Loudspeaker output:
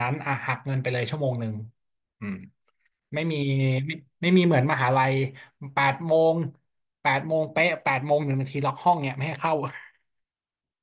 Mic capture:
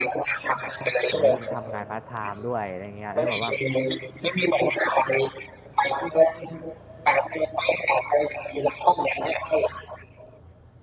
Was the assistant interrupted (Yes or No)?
Yes